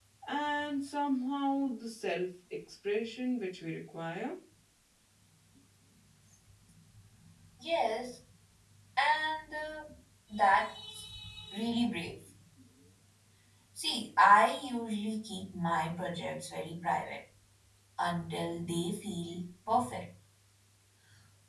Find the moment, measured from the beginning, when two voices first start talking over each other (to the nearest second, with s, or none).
none